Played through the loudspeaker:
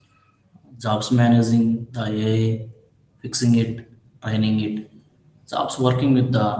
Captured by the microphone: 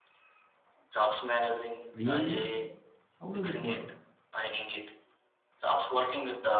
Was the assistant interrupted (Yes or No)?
Yes